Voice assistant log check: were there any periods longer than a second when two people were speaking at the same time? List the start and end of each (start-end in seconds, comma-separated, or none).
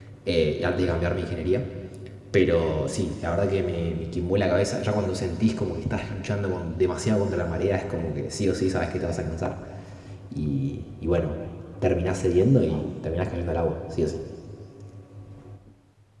none